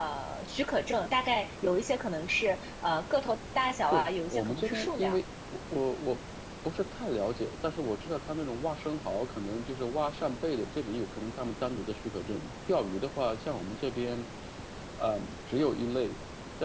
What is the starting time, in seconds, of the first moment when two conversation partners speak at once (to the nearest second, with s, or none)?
4 s